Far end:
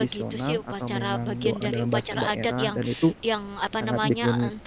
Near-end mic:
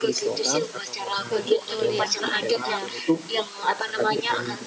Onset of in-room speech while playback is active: 1.2 s

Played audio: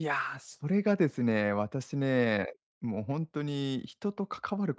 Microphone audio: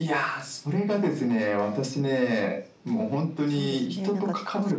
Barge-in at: 3.4 s

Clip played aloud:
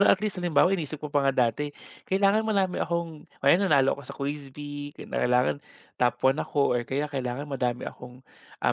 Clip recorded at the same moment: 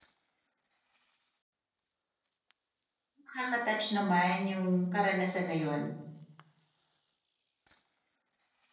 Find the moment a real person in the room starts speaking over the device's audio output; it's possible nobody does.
3.2 s

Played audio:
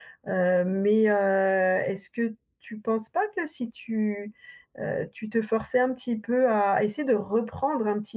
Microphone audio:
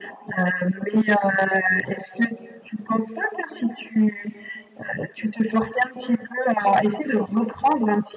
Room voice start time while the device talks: none

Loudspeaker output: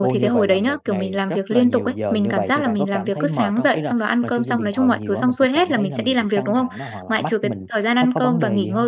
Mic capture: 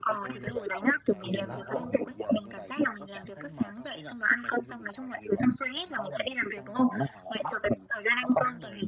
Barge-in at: 1.2 s

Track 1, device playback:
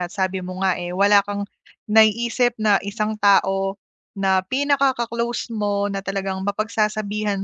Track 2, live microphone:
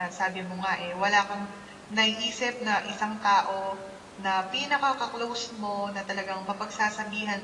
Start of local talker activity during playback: none

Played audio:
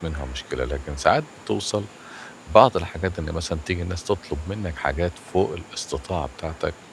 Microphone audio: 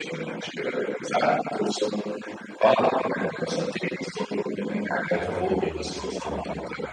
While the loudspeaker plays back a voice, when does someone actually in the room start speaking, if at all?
5.1 s

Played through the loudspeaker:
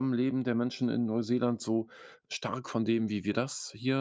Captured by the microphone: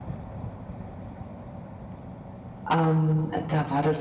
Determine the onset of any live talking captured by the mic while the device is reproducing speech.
2.7 s

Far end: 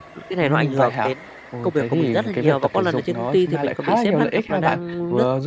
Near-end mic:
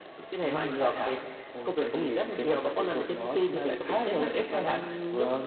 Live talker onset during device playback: none

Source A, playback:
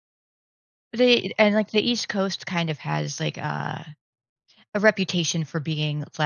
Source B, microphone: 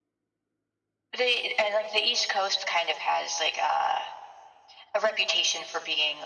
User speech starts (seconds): none

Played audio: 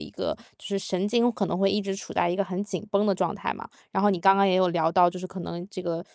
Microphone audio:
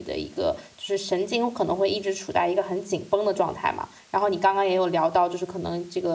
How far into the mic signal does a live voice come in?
none

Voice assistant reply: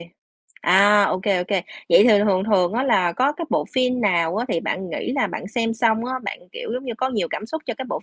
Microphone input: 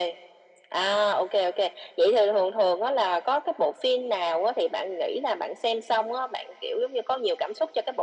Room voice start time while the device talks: none

